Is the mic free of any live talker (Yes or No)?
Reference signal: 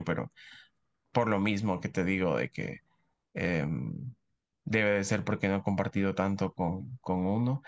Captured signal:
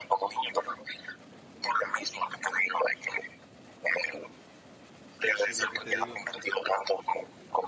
No